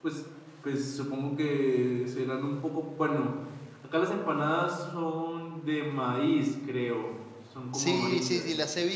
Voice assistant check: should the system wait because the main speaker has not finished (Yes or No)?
No